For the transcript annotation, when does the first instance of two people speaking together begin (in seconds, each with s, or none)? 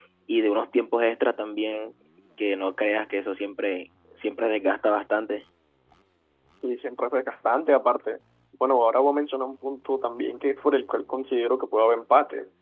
none